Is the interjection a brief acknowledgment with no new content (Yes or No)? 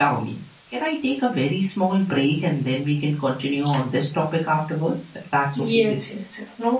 No